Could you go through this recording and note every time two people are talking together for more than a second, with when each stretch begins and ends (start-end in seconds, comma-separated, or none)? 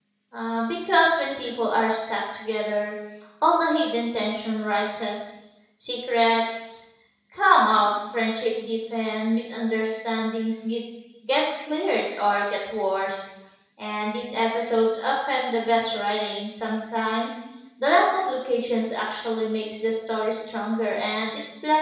none